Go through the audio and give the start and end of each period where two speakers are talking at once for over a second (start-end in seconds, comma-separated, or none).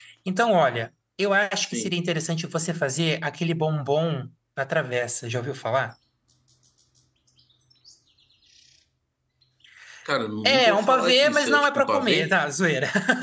10.4-12.3